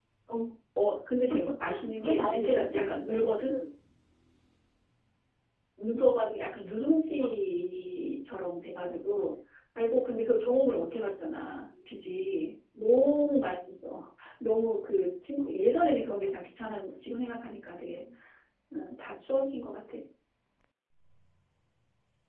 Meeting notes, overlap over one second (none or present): present